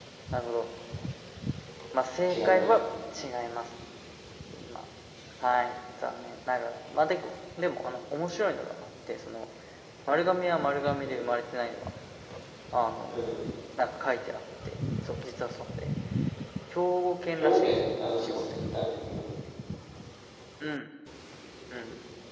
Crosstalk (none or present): present